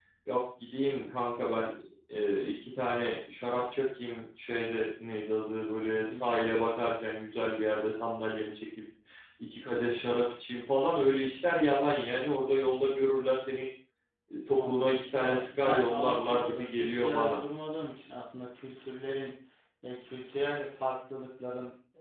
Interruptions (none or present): present